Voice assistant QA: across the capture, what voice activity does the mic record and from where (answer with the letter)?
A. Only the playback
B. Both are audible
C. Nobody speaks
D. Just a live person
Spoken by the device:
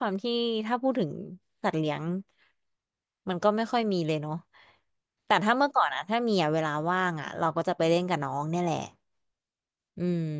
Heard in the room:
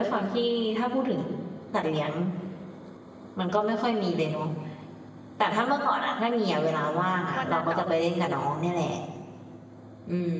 B